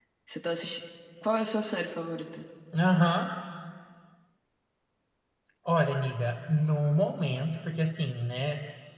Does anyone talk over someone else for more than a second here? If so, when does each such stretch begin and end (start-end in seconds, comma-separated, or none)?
none